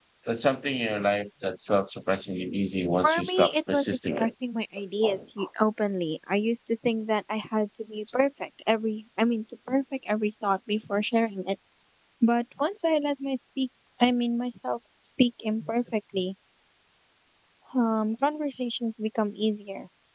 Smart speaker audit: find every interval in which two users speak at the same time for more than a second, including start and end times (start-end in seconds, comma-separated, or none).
3.0-4.3